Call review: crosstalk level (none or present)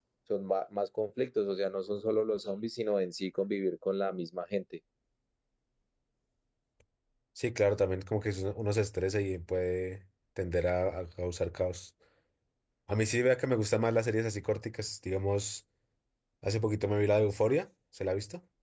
none